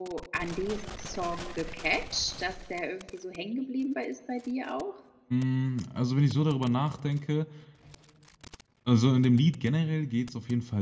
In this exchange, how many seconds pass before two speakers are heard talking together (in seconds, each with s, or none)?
none